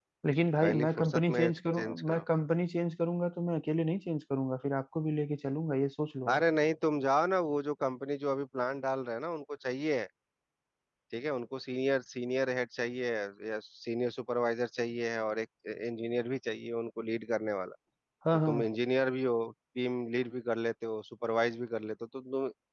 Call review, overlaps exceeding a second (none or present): present